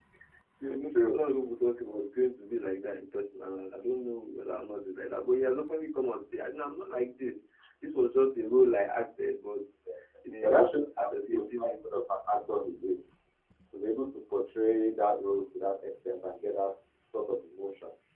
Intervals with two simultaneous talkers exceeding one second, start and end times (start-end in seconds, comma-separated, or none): 10.4-11.7